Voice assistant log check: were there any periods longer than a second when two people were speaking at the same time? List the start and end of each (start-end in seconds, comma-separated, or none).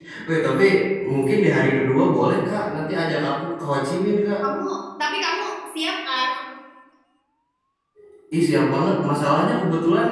none